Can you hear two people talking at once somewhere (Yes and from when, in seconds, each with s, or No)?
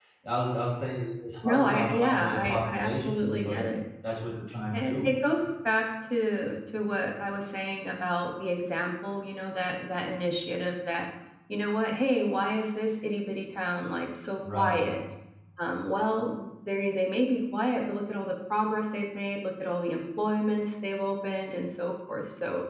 Yes, from 1.4 s